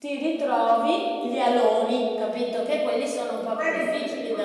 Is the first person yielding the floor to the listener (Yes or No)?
Yes